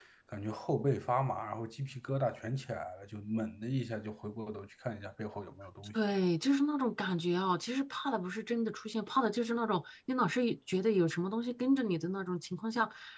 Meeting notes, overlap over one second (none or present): none